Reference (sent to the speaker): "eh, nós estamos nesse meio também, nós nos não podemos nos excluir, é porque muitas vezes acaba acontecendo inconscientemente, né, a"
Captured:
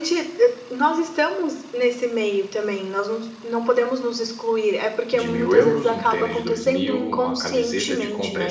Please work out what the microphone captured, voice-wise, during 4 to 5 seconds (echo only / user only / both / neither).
echo only